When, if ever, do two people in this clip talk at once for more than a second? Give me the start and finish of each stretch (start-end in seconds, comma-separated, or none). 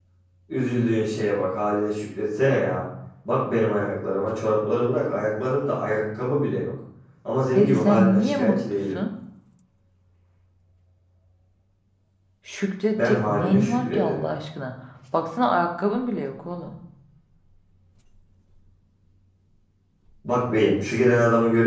7.5-9.0, 12.9-14.2